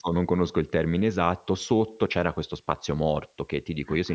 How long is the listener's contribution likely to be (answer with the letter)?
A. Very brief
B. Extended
A